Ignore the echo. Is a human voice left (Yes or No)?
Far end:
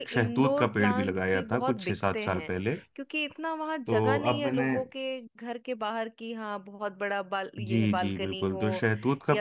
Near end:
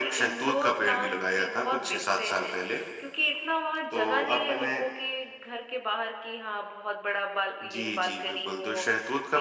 No